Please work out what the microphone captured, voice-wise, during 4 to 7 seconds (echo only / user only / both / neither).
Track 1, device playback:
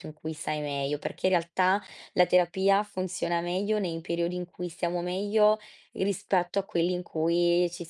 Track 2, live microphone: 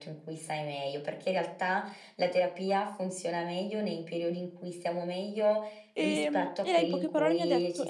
both